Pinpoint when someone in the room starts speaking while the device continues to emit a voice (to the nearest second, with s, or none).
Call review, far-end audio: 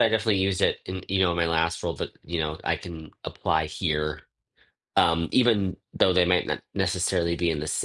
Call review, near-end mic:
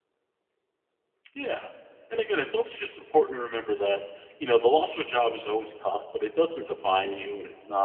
1 s